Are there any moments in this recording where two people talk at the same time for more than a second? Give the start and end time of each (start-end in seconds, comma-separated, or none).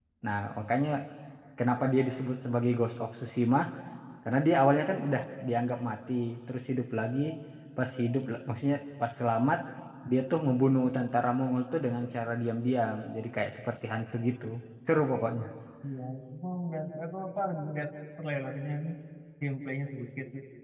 none